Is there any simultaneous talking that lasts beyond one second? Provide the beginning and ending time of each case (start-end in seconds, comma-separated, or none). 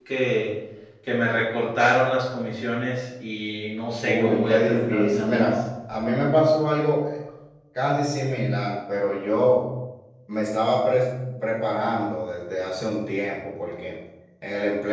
4.0-5.5